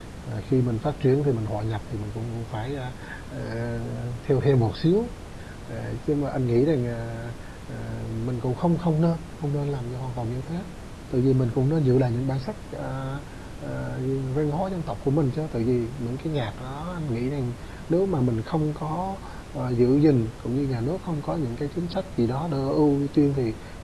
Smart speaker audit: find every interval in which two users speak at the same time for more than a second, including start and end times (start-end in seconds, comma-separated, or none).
none